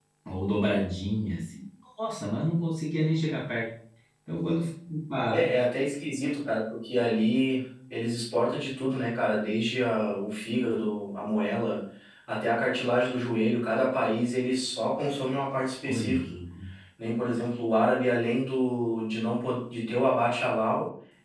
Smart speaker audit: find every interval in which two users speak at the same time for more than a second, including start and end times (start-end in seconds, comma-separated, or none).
none